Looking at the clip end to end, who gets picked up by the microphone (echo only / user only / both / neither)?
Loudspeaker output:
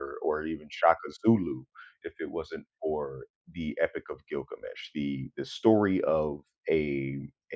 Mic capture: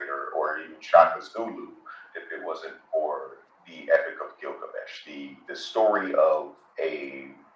echo only